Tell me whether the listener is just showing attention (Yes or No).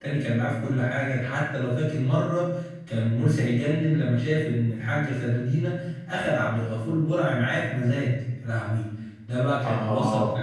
Yes